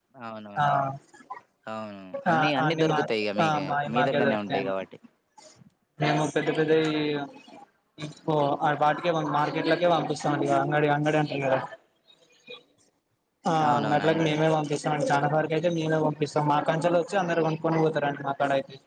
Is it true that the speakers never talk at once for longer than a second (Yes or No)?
No